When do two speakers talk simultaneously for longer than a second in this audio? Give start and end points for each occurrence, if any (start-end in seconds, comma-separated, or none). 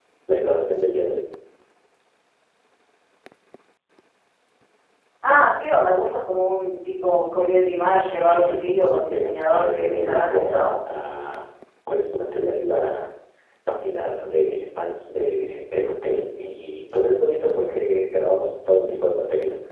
8.2-10.7